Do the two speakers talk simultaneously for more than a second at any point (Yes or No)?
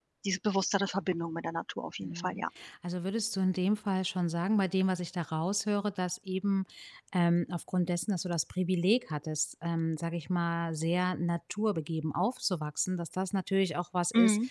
No